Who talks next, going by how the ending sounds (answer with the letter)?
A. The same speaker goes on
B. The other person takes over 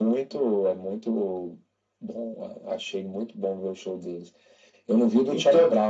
A